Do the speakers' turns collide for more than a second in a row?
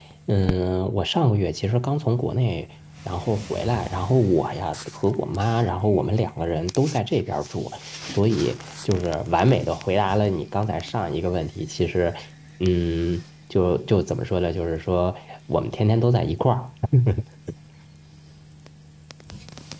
No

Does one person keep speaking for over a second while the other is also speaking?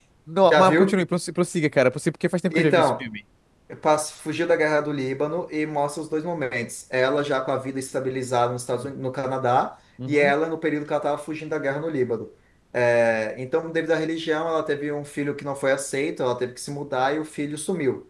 No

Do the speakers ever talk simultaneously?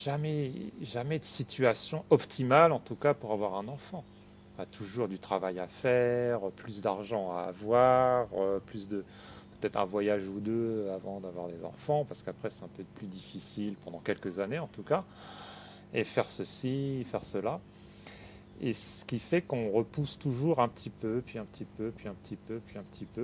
No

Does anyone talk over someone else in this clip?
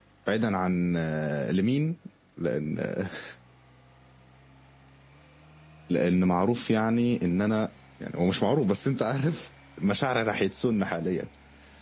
No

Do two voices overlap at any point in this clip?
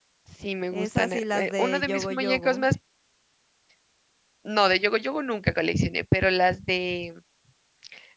Yes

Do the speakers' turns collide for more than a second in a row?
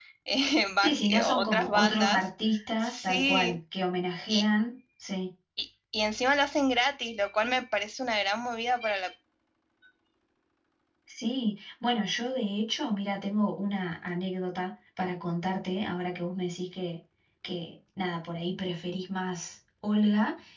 Yes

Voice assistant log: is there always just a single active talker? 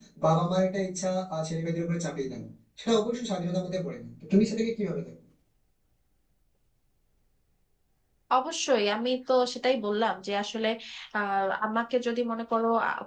Yes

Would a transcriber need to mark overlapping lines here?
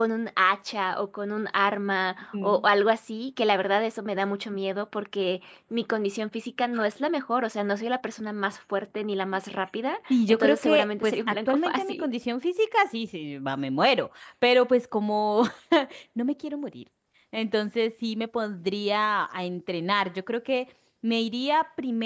Yes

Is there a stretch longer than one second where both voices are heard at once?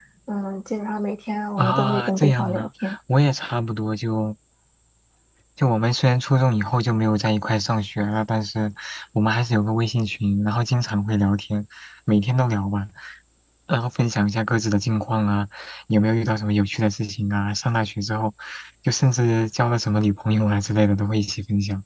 Yes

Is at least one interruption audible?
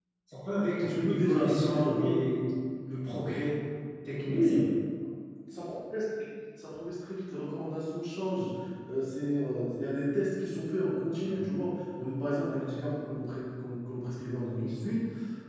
Yes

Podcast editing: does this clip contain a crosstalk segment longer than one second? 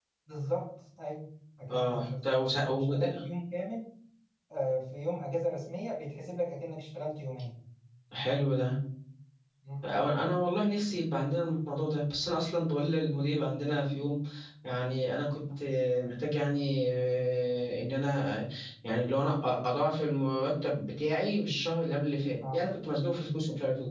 Yes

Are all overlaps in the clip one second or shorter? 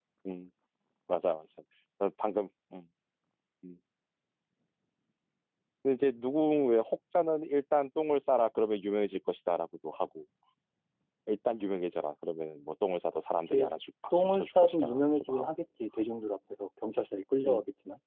No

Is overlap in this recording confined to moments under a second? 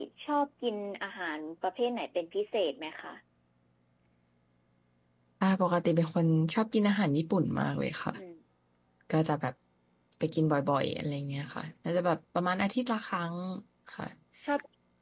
Yes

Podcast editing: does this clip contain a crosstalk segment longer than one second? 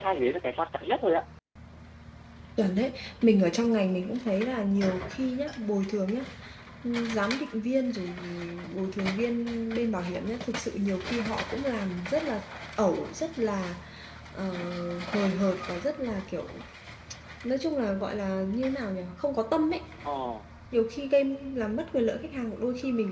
No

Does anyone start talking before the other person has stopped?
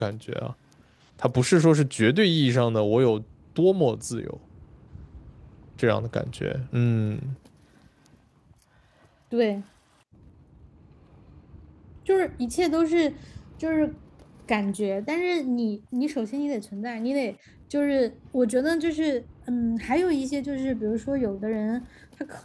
No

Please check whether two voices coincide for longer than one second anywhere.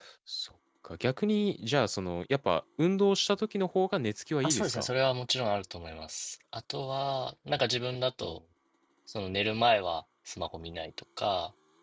No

